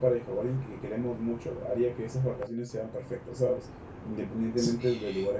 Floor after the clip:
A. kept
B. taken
A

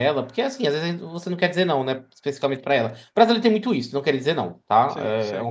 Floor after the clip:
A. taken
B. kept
B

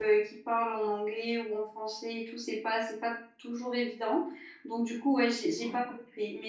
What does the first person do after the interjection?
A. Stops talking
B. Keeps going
B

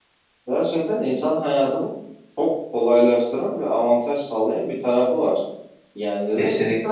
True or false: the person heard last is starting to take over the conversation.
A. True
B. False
B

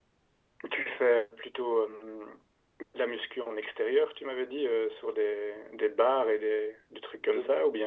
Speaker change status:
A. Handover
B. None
A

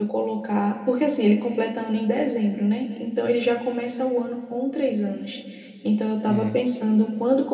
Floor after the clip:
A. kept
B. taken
A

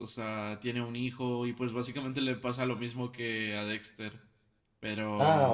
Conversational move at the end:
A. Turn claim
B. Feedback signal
A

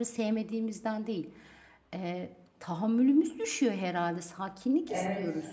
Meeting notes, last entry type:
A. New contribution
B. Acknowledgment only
A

